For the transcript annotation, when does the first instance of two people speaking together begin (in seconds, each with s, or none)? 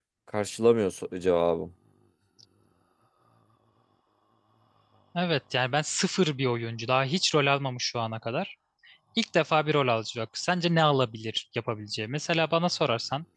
none